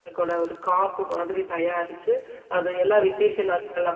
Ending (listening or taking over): listening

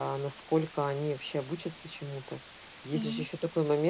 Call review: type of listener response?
listening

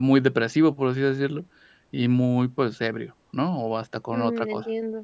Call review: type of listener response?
taking over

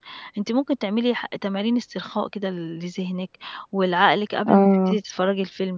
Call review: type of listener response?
listening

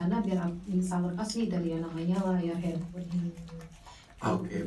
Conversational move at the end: taking over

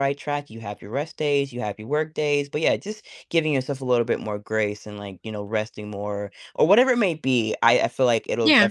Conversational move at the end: listening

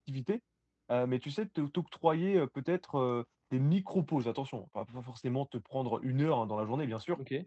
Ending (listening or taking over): listening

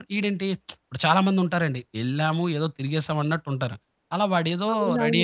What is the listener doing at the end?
taking over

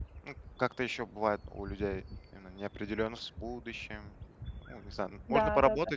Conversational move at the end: listening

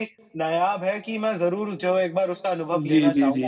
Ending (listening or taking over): taking over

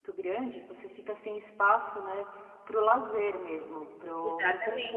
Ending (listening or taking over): taking over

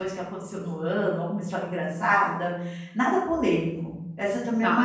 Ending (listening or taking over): taking over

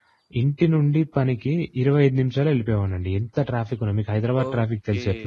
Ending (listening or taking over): taking over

